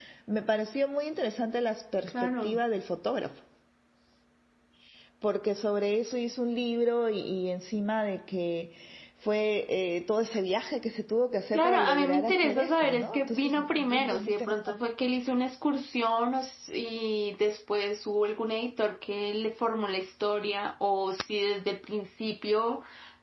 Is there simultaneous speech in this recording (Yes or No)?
Yes